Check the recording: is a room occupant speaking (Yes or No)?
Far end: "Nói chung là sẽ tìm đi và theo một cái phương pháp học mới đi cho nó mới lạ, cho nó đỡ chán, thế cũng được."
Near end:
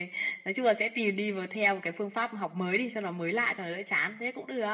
No